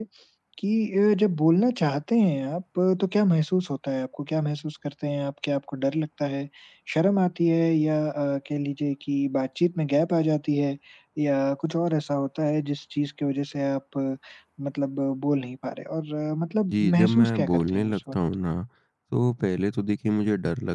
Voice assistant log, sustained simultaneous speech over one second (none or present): present